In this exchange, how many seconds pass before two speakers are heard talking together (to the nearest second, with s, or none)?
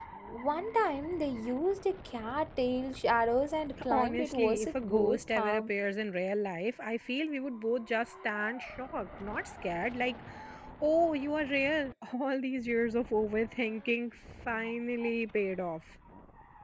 4 s